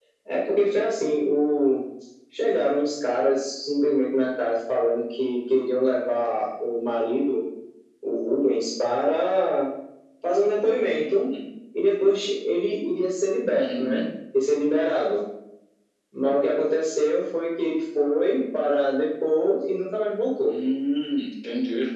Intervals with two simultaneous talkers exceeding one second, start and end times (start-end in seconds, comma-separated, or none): none